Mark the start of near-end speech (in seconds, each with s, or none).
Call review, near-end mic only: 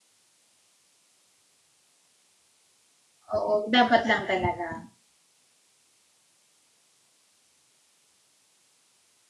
3.4 s